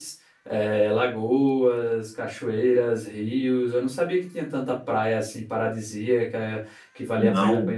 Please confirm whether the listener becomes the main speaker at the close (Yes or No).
Yes